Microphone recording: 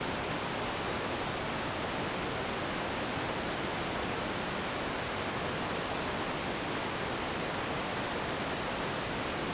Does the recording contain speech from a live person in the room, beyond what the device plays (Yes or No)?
No